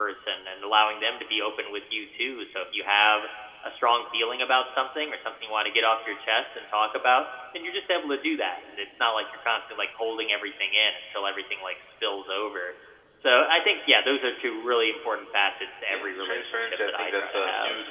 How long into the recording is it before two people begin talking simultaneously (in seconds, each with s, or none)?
15.9 s